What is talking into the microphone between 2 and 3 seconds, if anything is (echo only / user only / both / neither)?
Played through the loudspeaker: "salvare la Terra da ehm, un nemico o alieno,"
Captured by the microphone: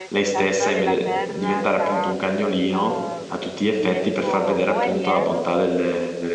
both